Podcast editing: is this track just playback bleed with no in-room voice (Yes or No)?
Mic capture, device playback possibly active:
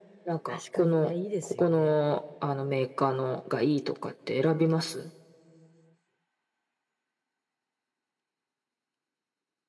No